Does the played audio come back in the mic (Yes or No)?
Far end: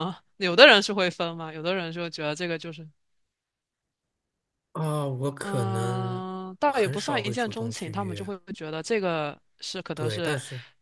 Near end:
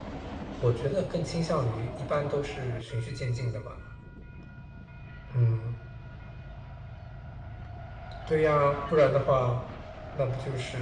No